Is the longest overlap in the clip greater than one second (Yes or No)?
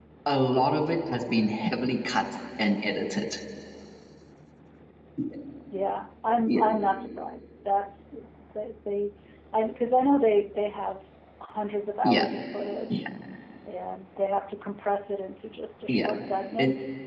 No